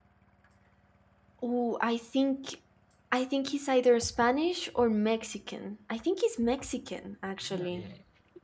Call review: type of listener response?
taking over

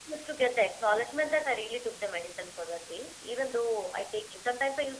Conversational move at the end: listening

